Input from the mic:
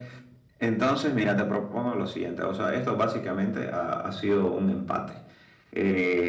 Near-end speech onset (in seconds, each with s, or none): none